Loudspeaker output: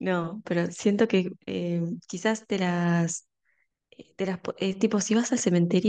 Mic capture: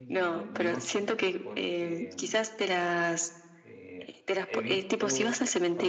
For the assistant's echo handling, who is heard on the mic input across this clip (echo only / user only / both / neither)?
both